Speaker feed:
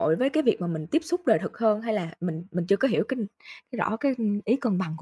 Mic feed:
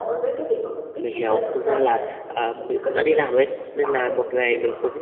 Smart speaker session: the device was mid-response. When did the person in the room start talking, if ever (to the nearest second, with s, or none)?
1 s